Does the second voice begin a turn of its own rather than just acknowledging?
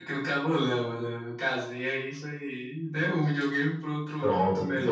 Yes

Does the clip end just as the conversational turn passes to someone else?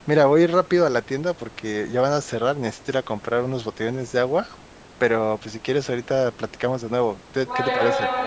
Yes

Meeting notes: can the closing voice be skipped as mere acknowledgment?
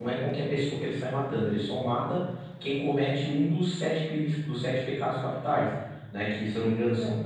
Yes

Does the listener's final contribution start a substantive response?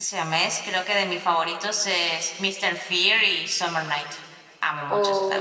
Yes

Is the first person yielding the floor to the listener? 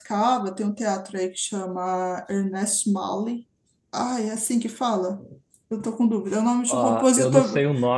Yes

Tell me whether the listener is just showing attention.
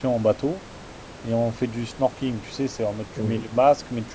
Yes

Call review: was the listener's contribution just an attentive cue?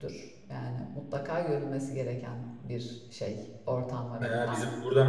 No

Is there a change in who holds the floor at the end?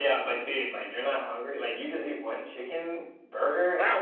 Yes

